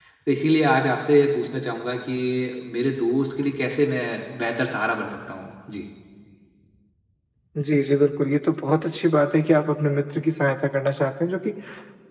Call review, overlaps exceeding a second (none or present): none